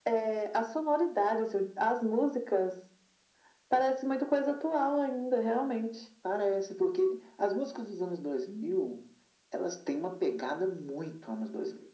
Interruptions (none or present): none